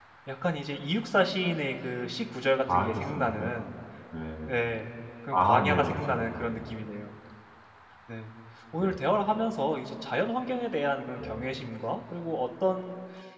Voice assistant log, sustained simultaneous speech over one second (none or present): present